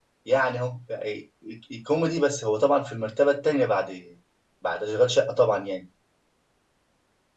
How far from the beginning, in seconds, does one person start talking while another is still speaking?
none

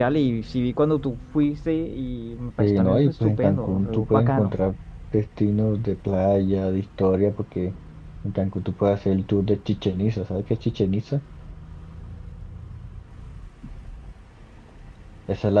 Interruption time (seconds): 2.6 s

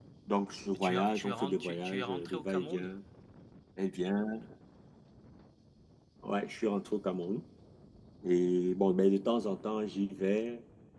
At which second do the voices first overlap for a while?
0.7 s

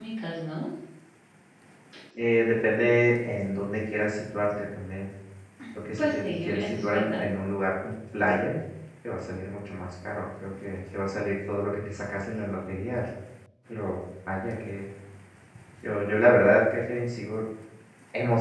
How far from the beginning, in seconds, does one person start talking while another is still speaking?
6.0 s

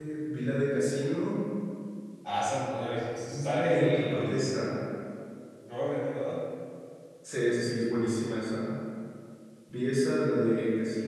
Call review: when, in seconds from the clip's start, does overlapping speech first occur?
3.3 s

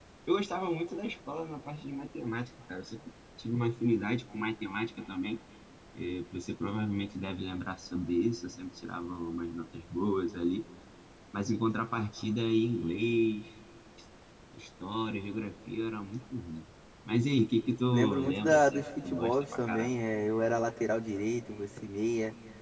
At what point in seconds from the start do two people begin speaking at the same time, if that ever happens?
17.9 s

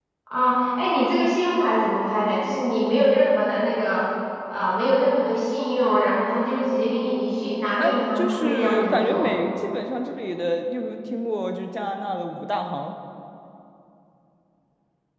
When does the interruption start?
7.8 s

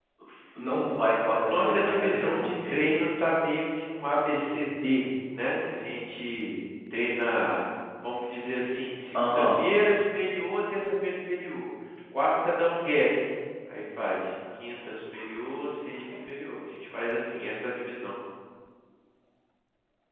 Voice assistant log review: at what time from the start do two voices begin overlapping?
1.4 s

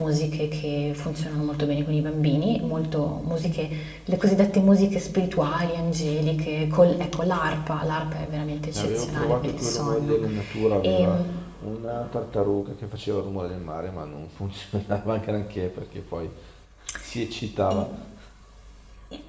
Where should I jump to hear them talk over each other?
8.7 s

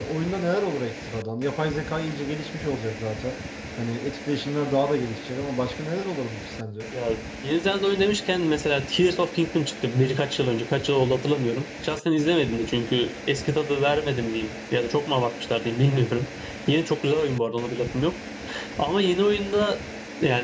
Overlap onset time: none

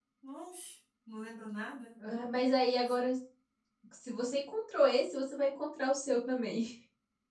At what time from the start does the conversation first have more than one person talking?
none

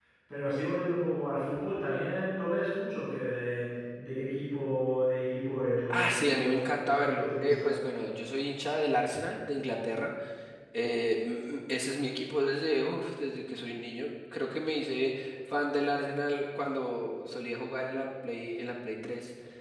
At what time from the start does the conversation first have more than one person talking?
5.9 s

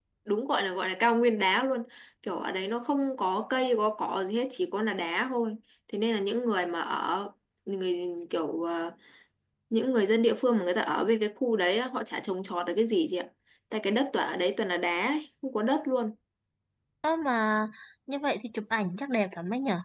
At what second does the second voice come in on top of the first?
none

